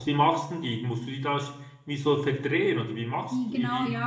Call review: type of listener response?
taking over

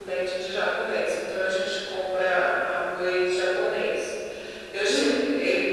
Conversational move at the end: listening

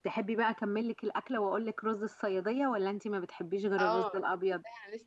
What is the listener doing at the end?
taking over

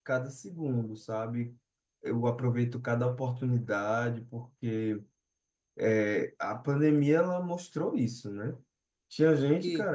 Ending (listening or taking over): listening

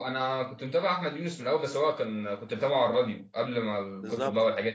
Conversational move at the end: taking over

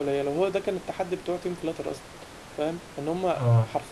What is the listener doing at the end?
listening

